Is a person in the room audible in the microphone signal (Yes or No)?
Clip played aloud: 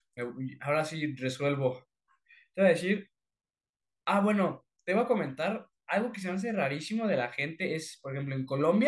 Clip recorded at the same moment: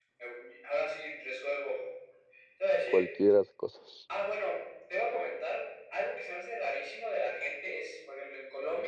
Yes